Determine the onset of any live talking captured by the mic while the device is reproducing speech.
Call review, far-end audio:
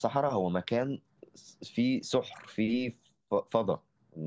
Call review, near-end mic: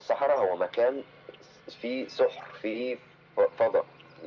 none

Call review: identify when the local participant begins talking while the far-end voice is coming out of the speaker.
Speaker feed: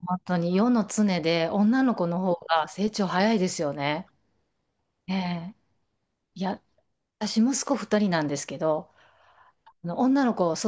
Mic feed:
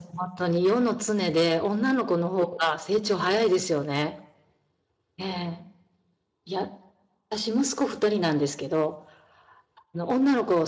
none

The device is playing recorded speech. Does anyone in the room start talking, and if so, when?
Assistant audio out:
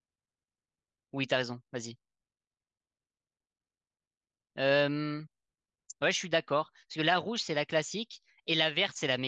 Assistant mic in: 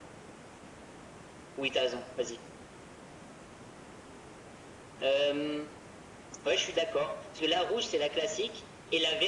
none

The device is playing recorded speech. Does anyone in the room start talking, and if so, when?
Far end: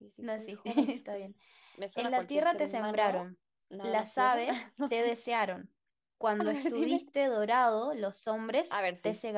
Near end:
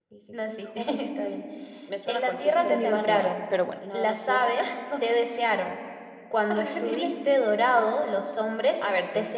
2.5 s

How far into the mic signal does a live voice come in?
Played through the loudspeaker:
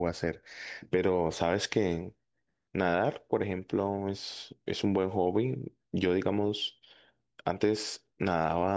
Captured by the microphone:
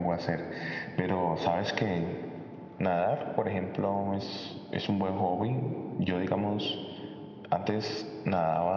none

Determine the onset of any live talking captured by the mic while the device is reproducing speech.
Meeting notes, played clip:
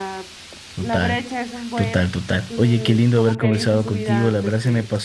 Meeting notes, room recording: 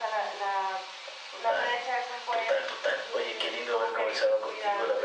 none

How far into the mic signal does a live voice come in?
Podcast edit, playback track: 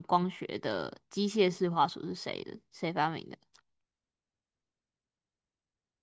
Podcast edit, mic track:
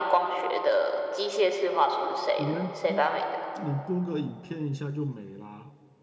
2.3 s

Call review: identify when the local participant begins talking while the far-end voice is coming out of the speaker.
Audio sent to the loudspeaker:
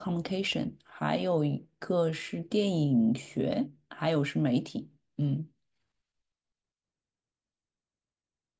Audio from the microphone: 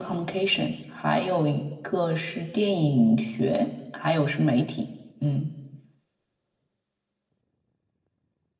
none

